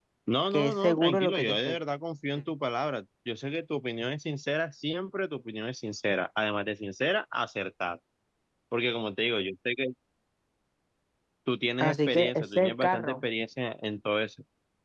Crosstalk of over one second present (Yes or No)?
Yes